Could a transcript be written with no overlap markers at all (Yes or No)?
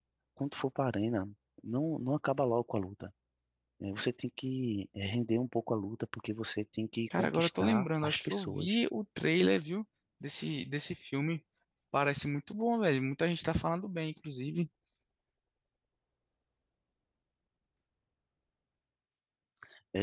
No